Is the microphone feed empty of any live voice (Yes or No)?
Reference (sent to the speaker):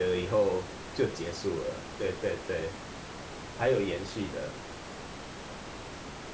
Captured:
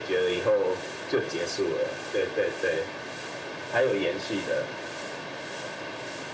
Yes